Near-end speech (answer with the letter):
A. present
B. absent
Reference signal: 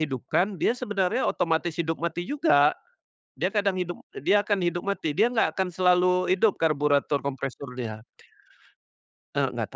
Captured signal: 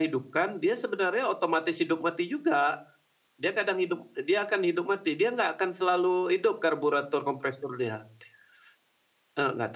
B